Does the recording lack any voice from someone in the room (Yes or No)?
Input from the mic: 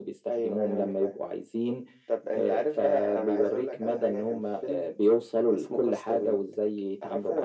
Yes